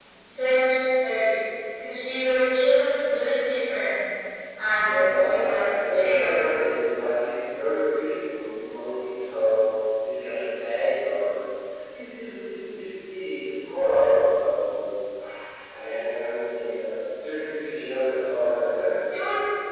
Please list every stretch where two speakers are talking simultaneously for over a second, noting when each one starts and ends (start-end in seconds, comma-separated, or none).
4.8-6.5